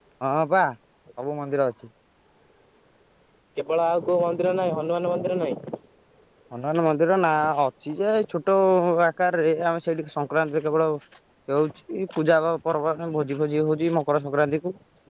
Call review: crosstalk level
none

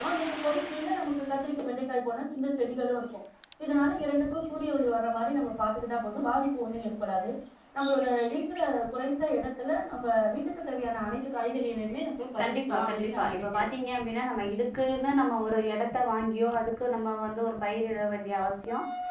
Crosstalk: present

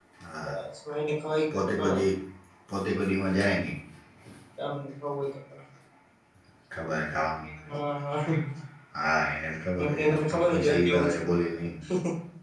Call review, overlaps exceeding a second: present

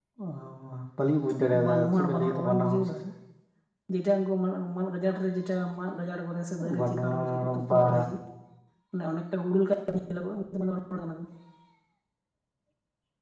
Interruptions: present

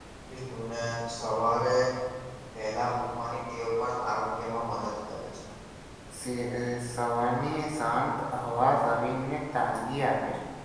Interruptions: none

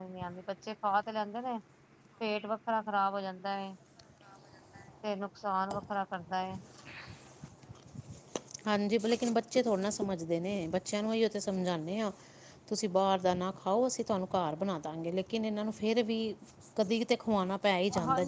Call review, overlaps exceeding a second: none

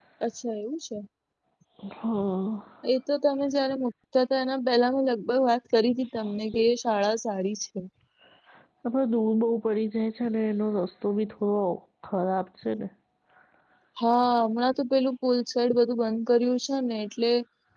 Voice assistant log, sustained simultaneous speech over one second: none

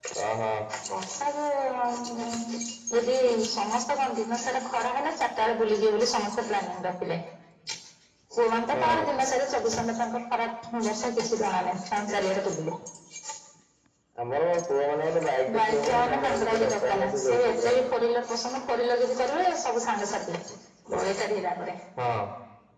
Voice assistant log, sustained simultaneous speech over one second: present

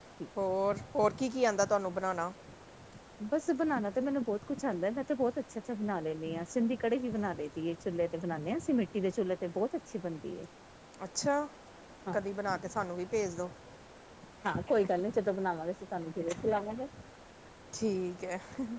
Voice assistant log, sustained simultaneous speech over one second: none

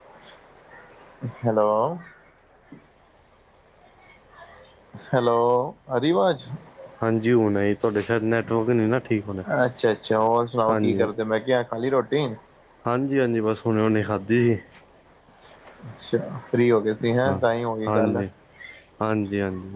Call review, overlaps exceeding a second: none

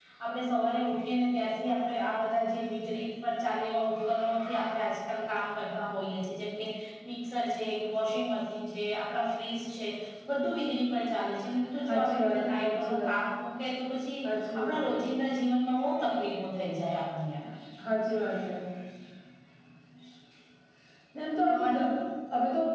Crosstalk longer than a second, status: present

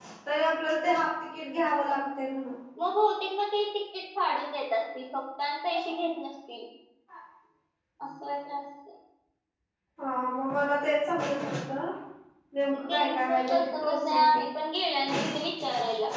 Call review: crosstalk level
present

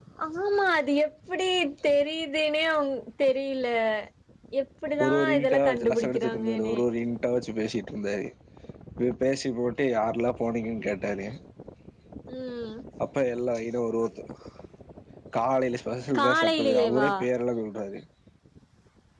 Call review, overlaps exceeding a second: present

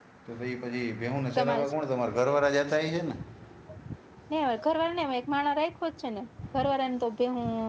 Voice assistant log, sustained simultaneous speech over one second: none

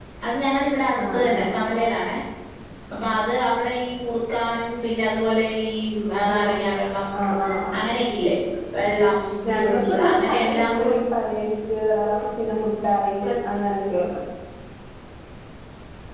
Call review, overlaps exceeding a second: present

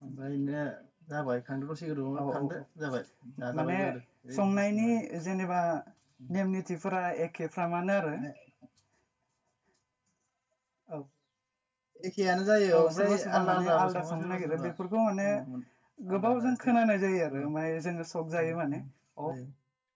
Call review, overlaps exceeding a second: present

